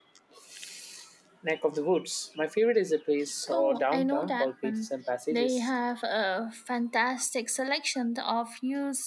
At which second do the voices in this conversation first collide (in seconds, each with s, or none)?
3.5 s